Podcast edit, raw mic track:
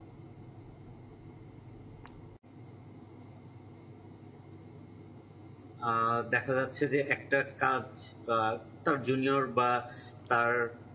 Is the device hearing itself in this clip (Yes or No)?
No